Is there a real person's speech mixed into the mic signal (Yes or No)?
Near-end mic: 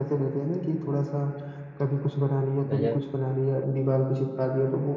Yes